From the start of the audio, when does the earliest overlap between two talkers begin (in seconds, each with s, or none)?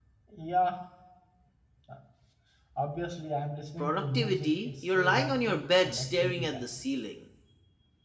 3.8 s